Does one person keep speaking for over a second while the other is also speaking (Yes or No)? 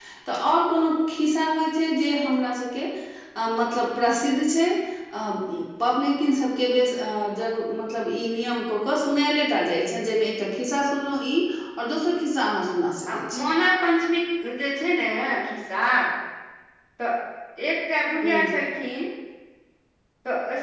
No